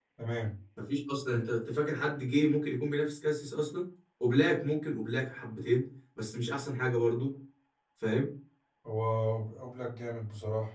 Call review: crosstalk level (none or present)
none